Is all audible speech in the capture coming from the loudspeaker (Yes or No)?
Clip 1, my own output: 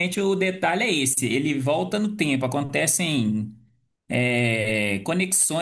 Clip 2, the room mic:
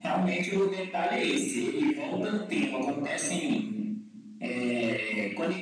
Yes